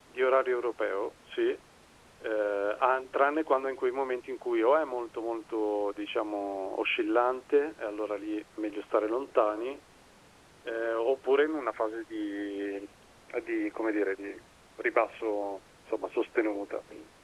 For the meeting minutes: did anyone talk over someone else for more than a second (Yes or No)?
No